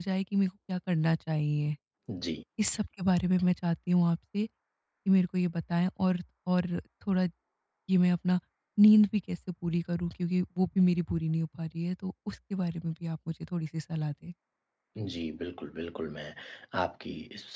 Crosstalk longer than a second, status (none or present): none